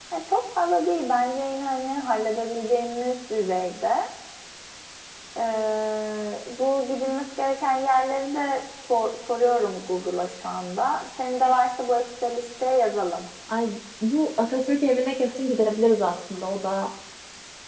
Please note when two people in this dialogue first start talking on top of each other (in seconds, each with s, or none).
none